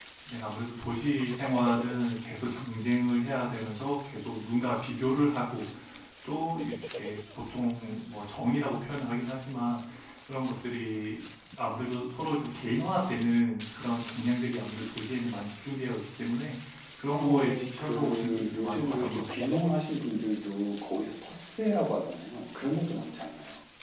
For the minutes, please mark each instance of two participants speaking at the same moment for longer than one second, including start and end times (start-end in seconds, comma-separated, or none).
17.1-19.2